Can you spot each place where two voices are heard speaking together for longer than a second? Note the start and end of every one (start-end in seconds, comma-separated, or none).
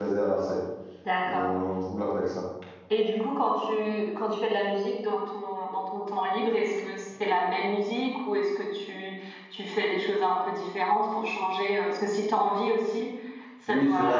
none